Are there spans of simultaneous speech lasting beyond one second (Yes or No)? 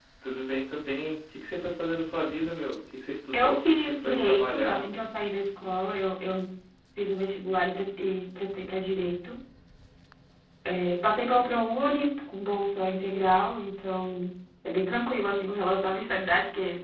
Yes